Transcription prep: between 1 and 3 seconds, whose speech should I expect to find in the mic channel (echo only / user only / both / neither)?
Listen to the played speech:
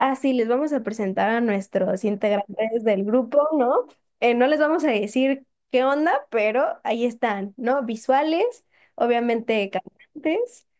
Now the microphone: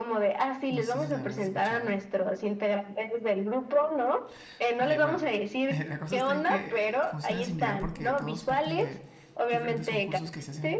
both